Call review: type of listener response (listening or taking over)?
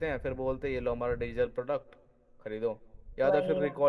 listening